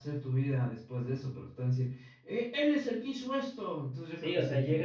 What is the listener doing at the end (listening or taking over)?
taking over